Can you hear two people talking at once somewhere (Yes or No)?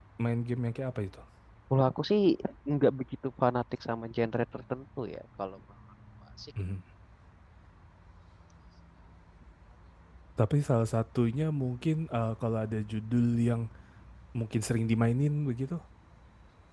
No